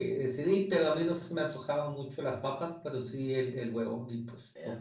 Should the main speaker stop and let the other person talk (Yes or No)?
Yes